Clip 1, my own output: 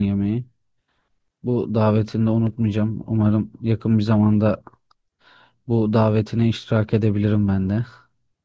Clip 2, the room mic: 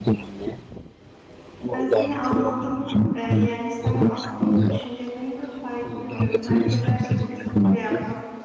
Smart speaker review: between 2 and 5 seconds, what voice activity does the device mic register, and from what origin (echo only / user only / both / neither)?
both